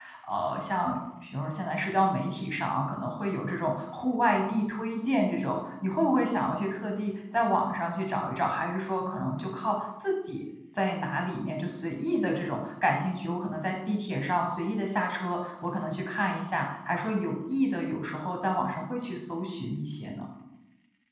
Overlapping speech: No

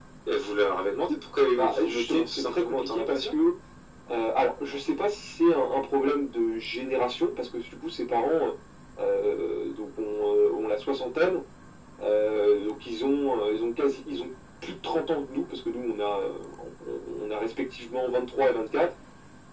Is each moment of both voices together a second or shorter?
No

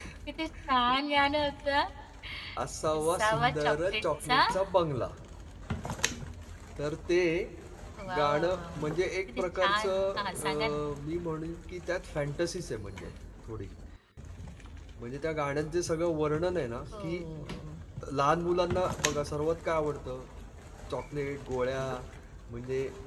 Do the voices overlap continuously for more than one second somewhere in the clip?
Yes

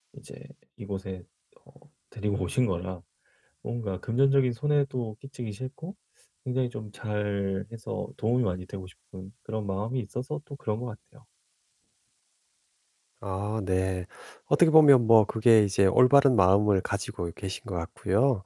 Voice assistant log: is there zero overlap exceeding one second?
Yes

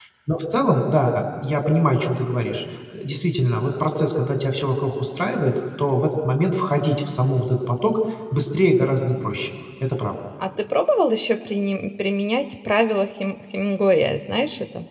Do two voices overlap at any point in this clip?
No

